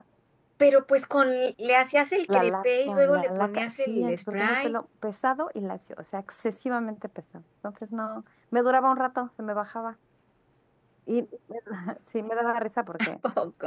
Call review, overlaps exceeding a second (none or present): present